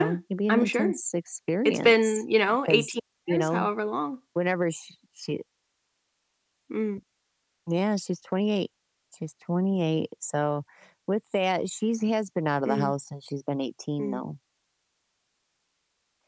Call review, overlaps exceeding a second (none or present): present